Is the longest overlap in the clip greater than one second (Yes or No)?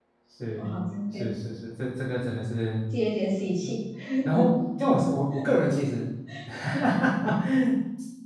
No